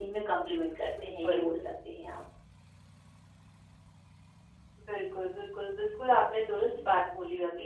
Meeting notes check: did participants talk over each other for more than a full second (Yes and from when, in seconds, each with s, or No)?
No